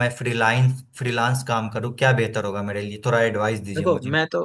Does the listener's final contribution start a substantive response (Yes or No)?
Yes